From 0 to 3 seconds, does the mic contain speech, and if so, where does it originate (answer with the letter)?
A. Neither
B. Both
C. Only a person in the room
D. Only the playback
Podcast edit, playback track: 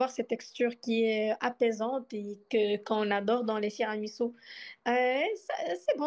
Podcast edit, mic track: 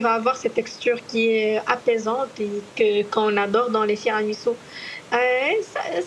D